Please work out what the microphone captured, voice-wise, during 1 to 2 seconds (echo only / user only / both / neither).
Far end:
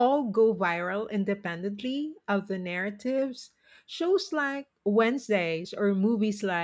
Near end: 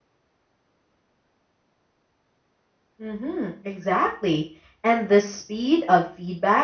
neither